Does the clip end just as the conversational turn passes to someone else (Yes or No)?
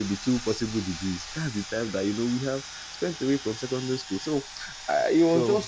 No